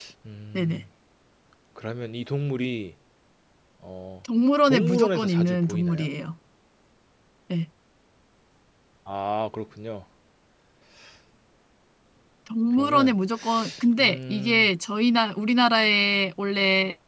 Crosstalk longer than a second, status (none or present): present